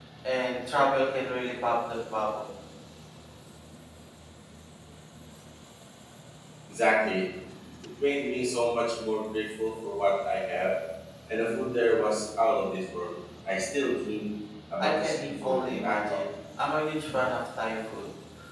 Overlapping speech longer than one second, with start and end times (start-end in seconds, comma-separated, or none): 14.8-16.2